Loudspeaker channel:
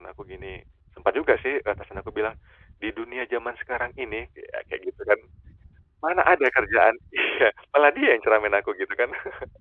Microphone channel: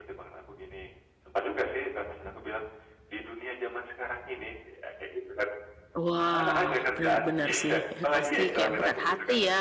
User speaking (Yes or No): Yes